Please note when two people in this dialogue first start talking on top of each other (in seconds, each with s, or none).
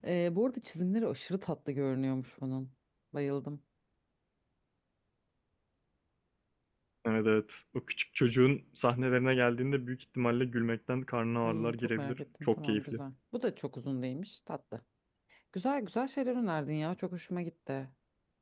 11.4 s